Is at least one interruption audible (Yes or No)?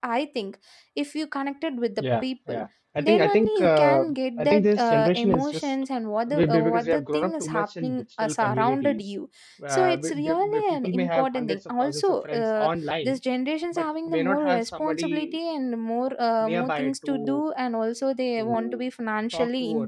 Yes